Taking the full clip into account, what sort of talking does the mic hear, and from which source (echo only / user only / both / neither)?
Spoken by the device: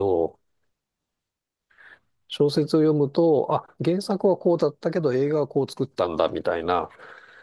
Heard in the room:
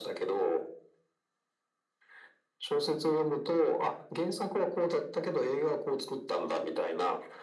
echo only